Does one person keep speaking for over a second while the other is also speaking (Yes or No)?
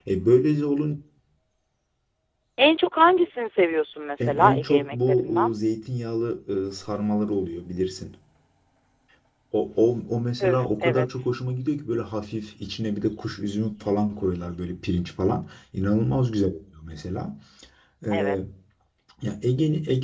Yes